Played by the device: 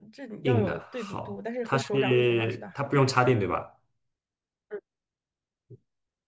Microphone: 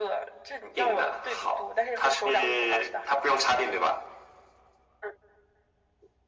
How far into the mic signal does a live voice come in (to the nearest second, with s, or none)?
none